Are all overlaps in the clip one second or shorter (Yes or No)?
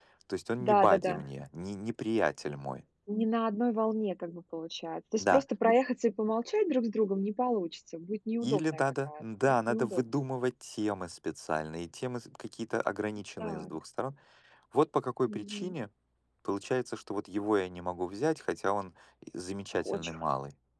No